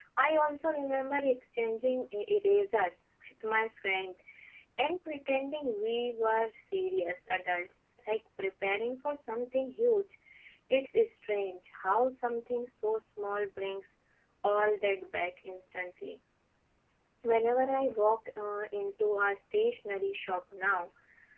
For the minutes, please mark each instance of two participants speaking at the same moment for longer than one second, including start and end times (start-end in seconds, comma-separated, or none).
none